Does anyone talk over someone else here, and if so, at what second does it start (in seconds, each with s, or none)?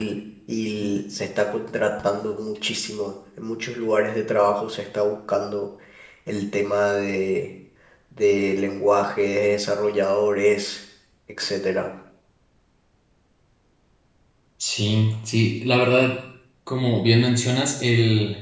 none